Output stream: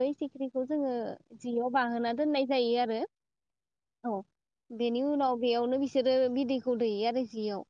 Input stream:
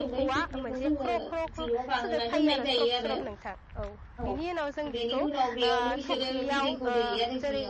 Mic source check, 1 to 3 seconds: both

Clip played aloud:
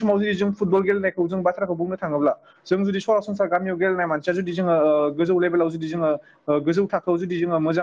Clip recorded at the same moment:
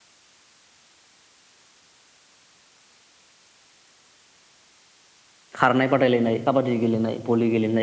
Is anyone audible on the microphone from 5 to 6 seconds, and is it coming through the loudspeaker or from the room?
user only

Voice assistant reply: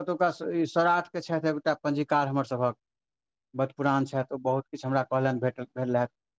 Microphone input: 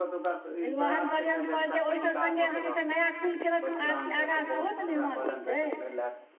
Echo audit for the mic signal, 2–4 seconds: both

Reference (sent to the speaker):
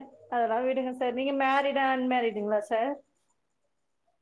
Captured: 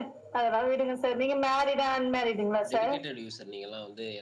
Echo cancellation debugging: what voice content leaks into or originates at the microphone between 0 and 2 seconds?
echo only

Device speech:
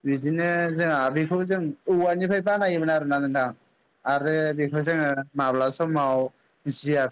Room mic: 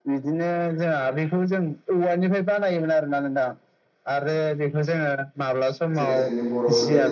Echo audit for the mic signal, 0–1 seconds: echo only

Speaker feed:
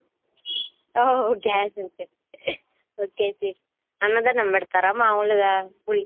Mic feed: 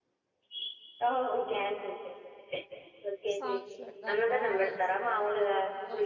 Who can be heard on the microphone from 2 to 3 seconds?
echo only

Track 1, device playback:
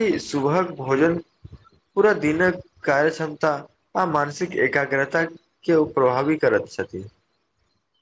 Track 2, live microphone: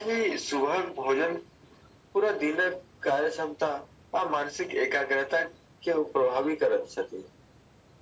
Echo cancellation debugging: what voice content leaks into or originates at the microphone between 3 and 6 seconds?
echo only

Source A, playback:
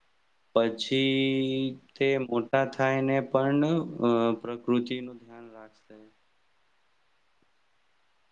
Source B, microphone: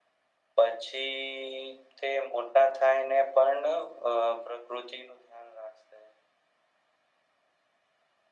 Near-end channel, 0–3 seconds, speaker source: echo only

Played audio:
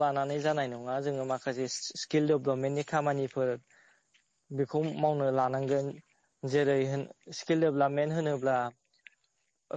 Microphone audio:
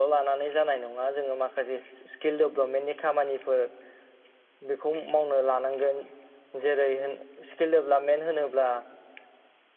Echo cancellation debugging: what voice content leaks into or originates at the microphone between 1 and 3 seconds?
echo only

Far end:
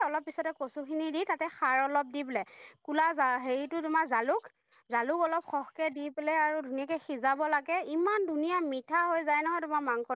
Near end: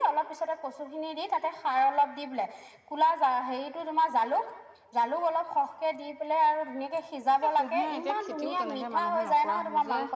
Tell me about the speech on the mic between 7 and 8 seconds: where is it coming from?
both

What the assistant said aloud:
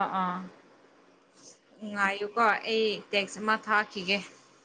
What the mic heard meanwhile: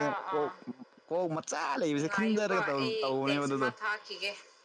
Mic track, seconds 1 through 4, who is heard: both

